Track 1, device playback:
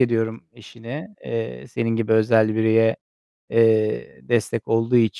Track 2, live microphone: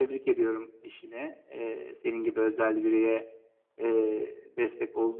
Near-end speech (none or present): none